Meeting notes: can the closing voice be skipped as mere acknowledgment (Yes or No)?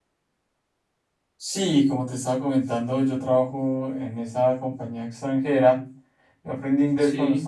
Yes